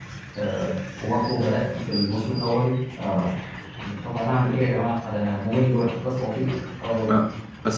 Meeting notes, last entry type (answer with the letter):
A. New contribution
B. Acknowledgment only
A